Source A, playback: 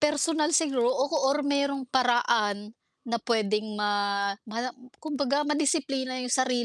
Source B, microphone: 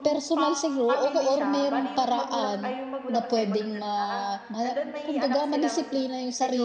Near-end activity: present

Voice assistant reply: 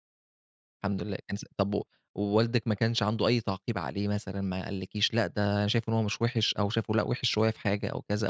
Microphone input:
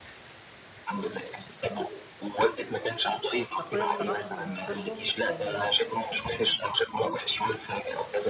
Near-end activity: present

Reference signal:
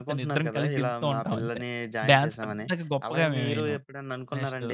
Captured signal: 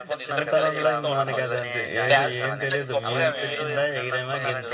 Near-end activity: present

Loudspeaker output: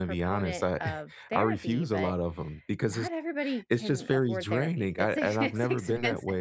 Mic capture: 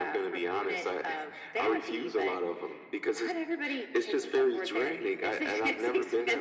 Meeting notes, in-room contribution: none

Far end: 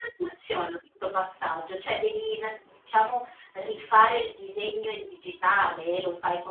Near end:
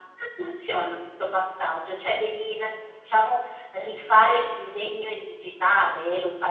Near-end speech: none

